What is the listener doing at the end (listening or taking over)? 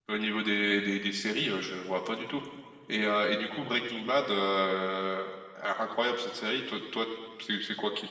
taking over